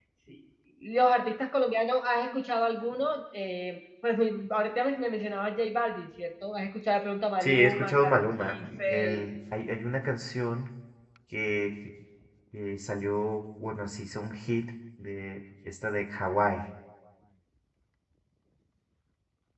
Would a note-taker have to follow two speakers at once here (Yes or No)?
Yes